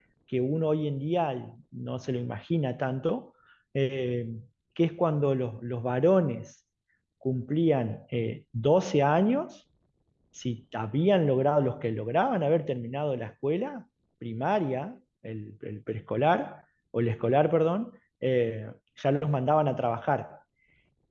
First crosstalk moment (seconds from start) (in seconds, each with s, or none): none